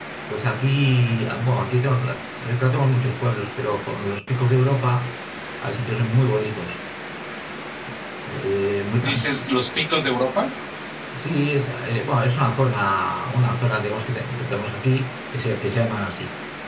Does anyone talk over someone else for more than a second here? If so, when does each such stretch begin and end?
none

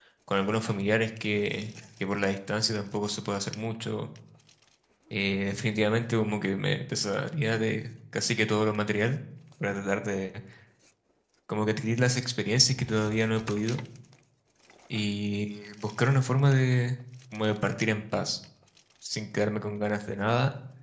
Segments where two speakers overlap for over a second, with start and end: none

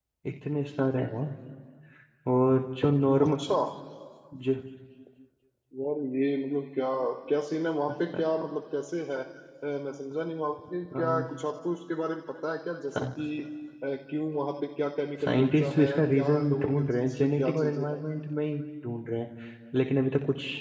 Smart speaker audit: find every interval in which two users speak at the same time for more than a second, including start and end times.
15.2-18.0

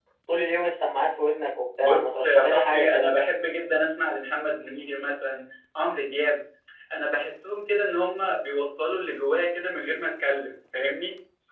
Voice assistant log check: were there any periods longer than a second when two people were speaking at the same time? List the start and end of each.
1.8-3.1

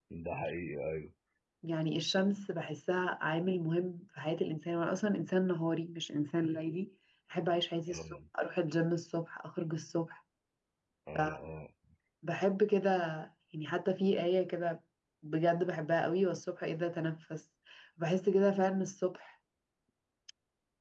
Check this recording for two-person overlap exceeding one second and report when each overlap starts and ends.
none

